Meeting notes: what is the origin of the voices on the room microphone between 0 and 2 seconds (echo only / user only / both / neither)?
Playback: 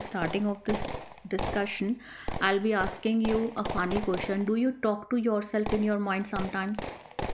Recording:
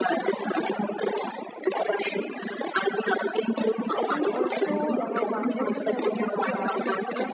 echo only